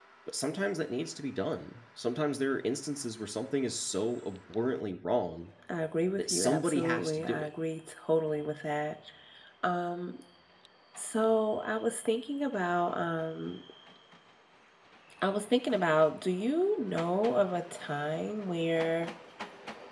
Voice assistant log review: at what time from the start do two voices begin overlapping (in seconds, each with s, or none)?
6.2 s